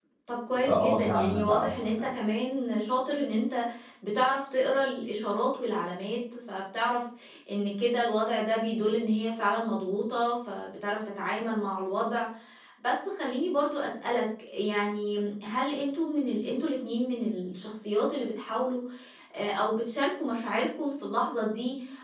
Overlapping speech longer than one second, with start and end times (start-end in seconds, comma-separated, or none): 0.6-2.1